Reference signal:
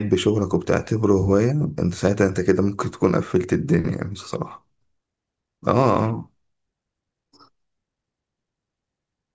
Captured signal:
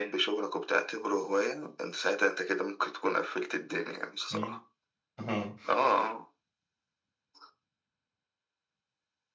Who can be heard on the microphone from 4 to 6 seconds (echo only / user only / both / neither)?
both